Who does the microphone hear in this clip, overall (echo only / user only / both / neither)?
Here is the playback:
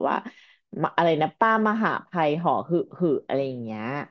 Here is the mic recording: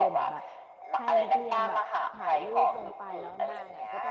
both